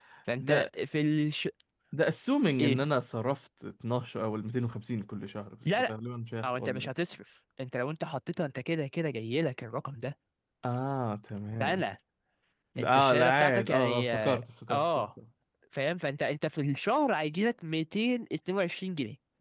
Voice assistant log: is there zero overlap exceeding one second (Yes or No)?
No